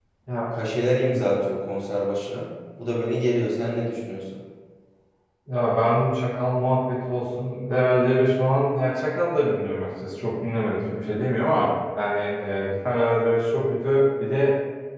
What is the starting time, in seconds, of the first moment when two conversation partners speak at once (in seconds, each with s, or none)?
none